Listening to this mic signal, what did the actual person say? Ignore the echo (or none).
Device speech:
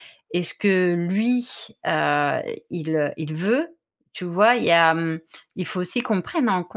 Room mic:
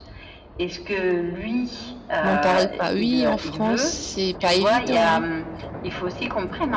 M’en parle pas. Oui en France, c'est pas évident, hein.